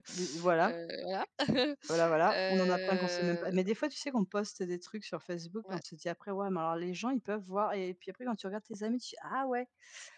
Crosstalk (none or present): present